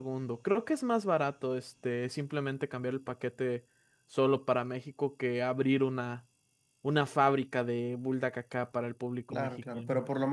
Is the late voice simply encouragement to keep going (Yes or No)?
No